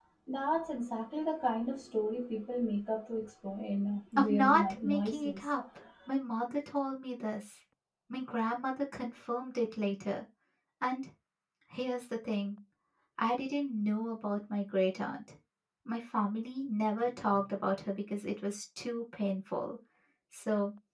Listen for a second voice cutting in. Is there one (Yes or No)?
Yes